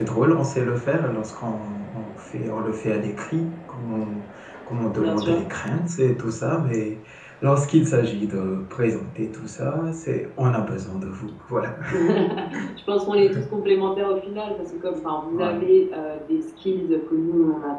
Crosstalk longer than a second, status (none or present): none